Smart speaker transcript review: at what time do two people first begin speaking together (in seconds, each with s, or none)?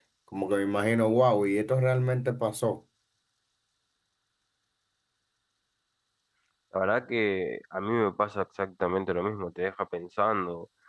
none